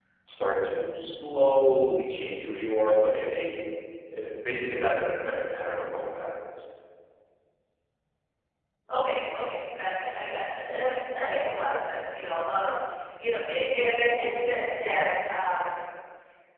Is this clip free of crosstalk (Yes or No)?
Yes